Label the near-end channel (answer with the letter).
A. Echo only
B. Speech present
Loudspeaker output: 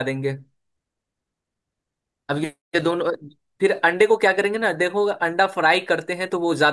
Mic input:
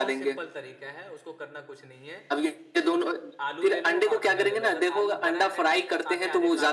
B